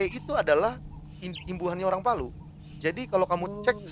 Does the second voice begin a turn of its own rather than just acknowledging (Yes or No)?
No